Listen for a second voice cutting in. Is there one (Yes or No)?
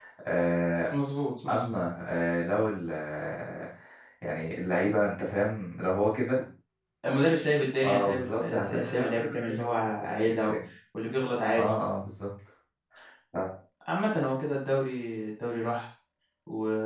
Yes